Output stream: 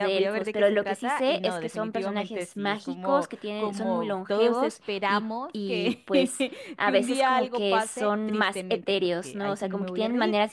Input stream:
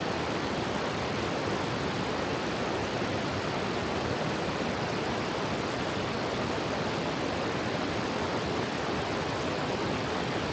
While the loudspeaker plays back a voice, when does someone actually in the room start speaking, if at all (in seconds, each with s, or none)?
none